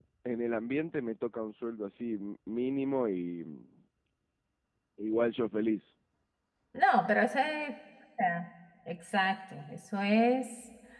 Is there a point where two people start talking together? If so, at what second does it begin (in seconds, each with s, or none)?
none